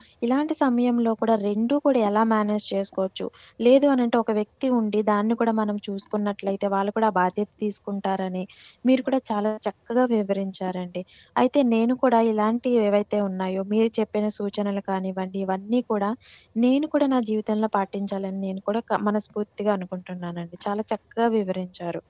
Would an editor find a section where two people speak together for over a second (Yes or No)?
No